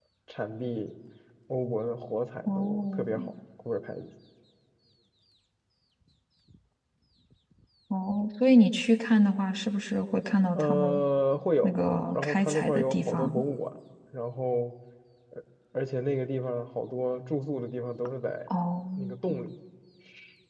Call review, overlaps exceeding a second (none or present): present